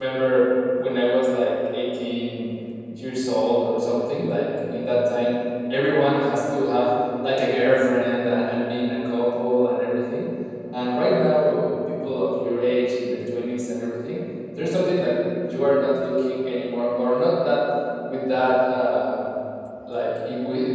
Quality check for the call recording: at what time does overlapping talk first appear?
none

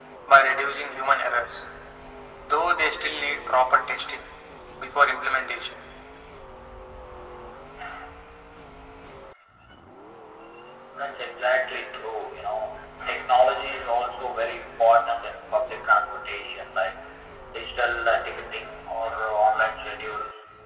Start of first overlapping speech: none

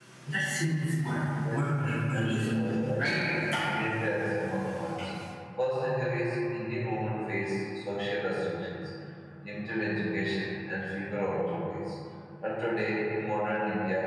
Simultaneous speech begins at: 1.4 s

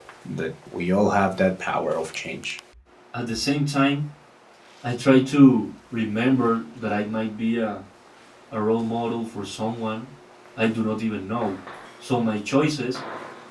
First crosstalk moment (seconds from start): none

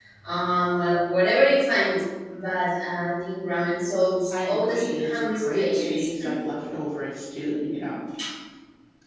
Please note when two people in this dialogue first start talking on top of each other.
4.3 s

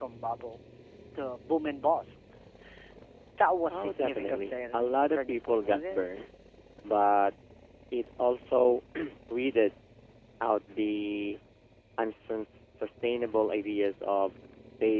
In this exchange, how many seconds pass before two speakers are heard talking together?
3.7 s

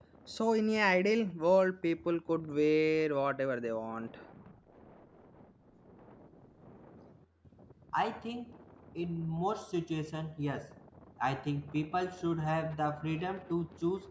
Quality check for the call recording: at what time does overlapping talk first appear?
none

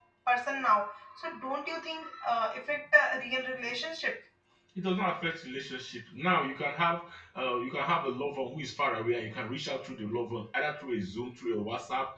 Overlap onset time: none

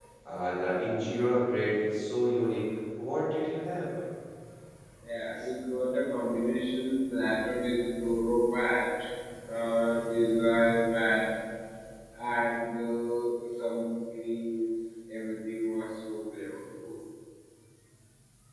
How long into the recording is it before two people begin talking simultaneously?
none

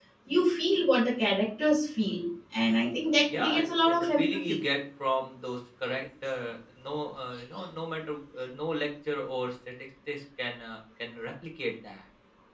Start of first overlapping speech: 3.3 s

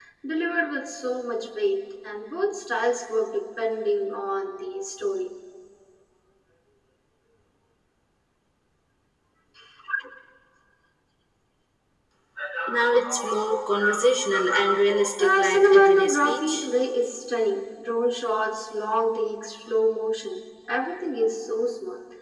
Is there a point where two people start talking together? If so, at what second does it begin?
15.2 s

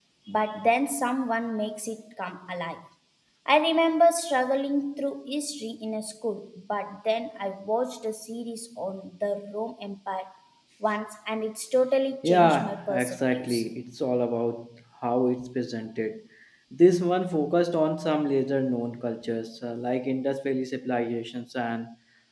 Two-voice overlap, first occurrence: 12.2 s

